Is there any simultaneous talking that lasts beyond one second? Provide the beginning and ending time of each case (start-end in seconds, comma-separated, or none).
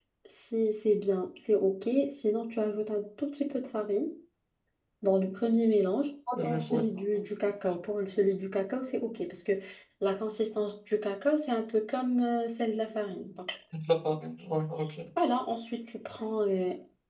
none